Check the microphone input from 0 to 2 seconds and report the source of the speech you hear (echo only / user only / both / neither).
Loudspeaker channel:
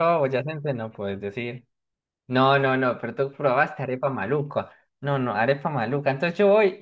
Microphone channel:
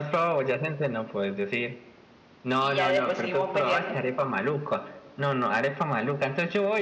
echo only